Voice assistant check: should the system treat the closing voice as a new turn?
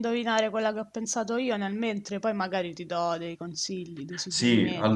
Yes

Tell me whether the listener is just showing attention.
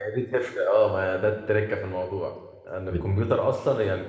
Yes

